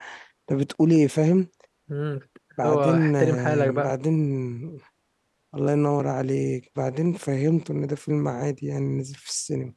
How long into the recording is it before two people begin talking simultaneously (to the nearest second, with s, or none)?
3 s